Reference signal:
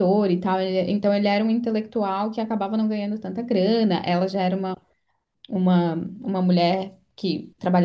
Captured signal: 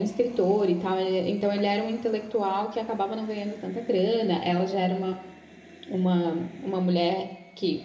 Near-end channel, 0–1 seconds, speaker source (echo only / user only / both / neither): echo only